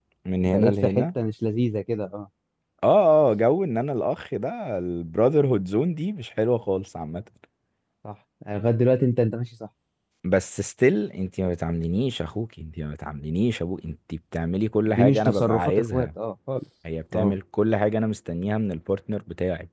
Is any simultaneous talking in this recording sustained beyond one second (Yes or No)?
Yes